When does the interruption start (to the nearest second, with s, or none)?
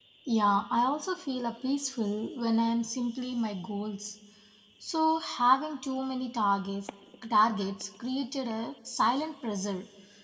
none